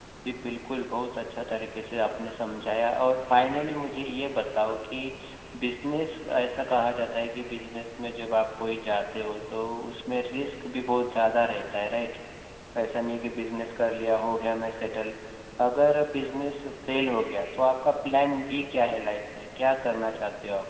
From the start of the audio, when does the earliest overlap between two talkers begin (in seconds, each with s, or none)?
none